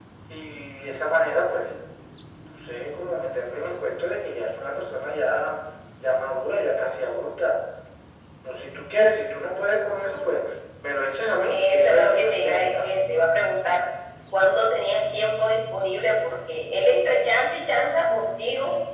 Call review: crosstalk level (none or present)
present